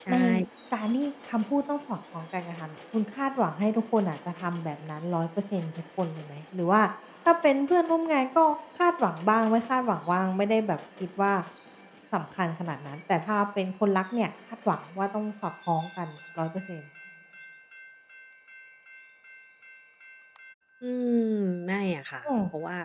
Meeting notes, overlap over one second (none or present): none